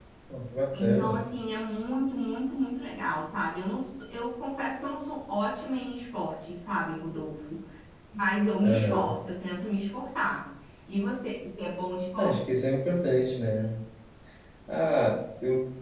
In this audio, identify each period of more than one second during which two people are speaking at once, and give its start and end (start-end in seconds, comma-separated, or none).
none